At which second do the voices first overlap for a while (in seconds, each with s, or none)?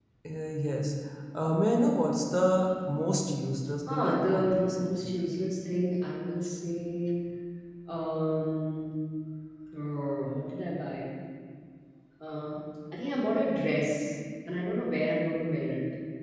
3.9 s